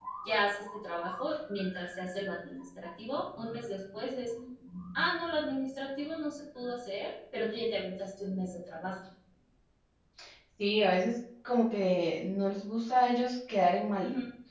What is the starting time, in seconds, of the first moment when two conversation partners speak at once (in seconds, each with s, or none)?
none